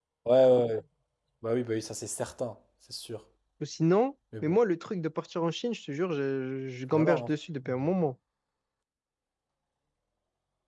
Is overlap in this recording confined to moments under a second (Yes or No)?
Yes